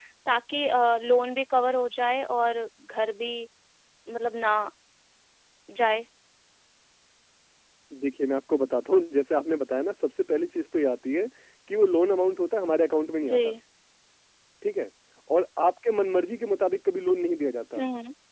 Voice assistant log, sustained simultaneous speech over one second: none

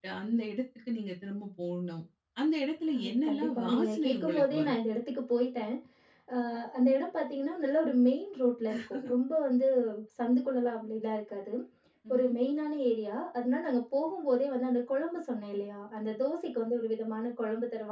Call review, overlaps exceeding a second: present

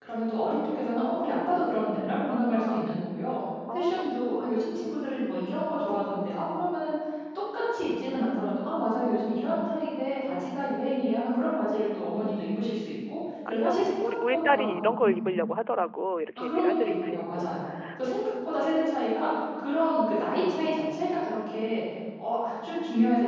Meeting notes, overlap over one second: present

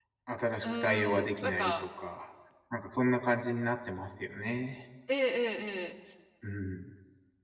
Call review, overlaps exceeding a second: present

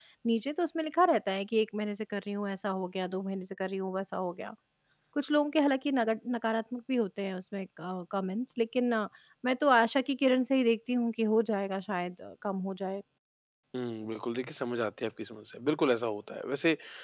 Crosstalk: none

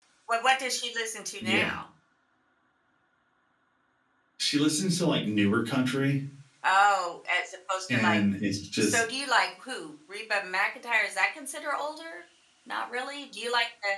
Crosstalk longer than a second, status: none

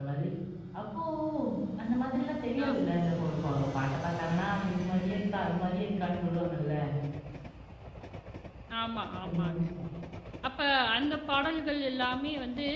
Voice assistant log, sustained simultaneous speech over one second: none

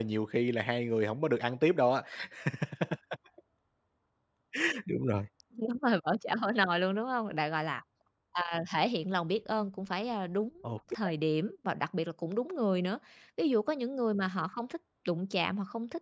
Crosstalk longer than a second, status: none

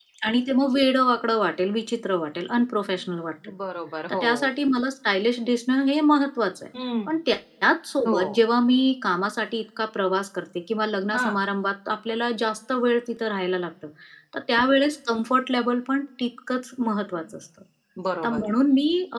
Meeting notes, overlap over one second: none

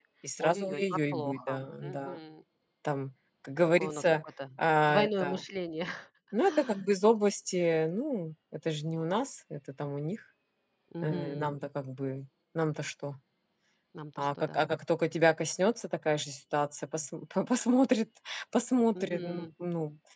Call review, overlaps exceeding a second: present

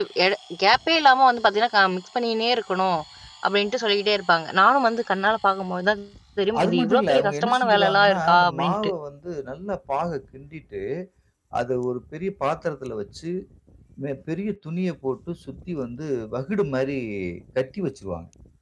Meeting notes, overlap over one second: present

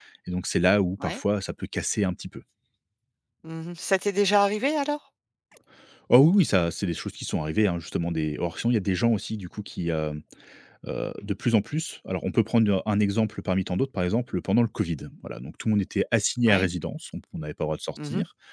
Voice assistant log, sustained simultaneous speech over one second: none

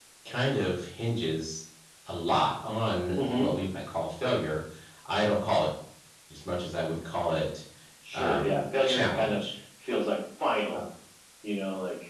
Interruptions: present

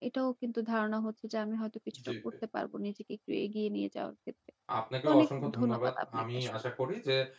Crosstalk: present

